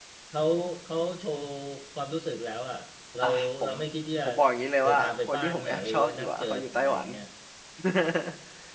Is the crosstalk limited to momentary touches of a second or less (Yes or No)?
No